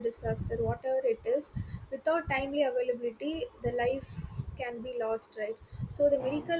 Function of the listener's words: listening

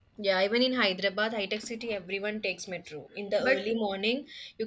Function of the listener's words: listening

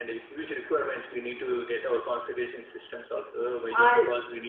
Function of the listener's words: listening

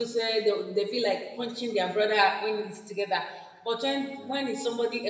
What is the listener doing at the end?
listening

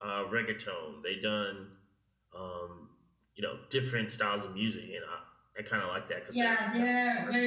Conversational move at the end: taking over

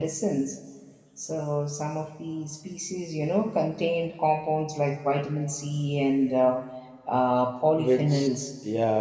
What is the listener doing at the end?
taking over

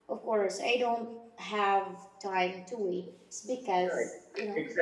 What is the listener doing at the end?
taking over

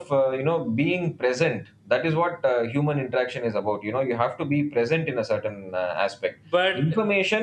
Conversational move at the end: listening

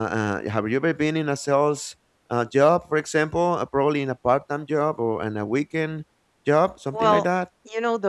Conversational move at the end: taking over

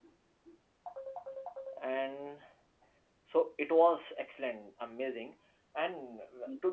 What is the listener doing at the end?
listening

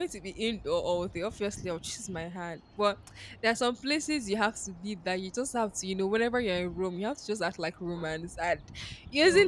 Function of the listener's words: listening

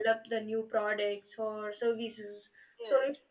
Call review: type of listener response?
listening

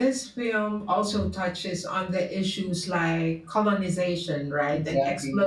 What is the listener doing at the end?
listening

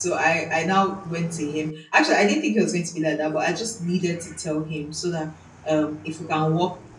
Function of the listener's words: listening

